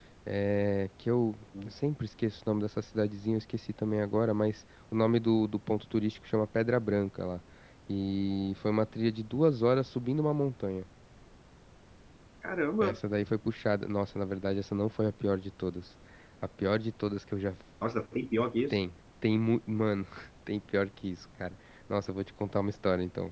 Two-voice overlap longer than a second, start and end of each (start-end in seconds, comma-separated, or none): none